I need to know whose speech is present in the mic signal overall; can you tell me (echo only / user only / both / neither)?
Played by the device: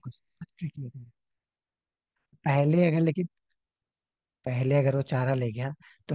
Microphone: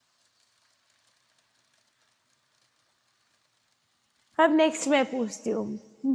user only